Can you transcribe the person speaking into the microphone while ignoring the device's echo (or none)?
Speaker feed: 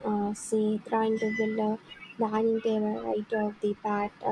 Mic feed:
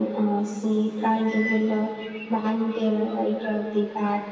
none